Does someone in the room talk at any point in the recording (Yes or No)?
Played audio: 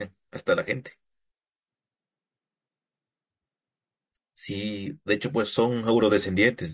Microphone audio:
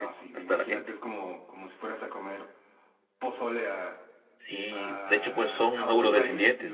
Yes